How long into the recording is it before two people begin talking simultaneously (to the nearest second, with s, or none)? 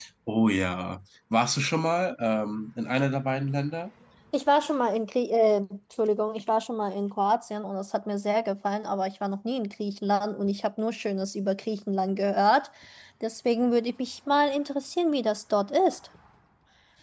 none